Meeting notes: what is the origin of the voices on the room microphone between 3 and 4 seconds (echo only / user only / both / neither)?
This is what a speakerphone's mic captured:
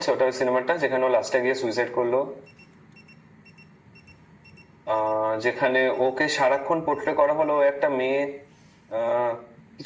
neither